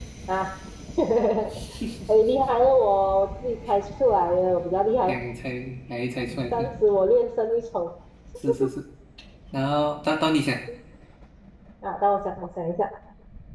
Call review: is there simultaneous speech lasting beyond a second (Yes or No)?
No